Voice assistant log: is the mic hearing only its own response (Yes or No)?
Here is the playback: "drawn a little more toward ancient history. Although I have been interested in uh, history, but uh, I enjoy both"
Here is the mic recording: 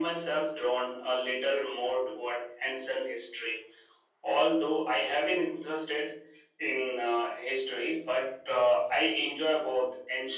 Yes